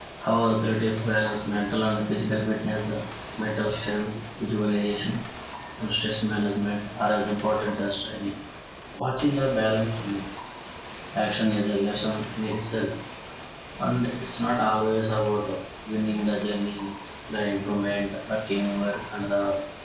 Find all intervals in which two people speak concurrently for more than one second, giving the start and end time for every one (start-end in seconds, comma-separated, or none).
none